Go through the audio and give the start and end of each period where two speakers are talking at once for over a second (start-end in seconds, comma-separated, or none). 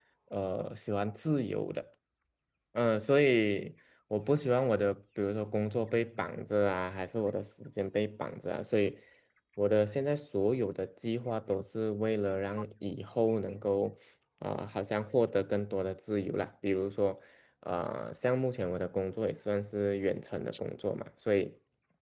none